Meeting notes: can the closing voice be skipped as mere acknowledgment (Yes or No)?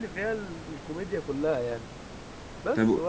Yes